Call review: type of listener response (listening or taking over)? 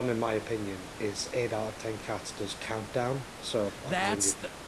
taking over